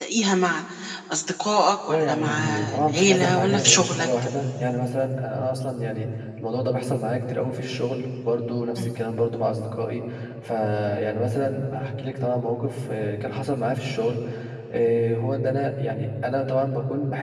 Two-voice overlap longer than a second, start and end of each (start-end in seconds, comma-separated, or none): 1.9-4.1